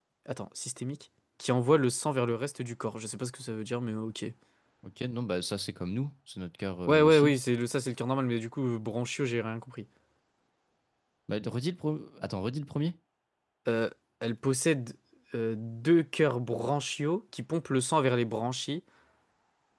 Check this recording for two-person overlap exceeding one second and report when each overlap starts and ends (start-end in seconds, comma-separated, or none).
none